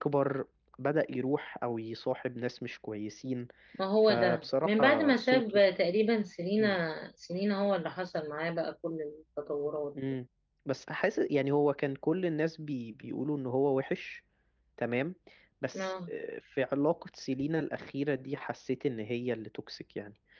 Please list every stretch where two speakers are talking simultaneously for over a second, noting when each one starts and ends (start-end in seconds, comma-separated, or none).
4.0-5.4